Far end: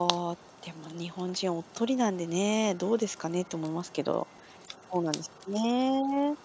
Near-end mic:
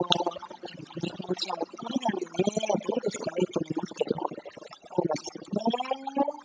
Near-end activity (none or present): none